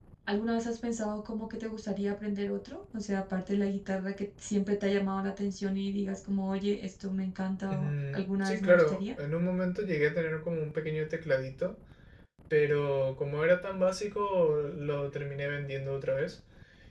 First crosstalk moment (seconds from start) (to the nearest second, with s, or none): 8 s